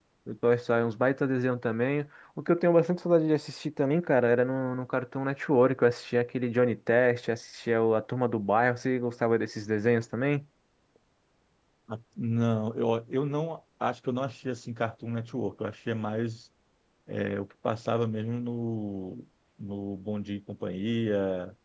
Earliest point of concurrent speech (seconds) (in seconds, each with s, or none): none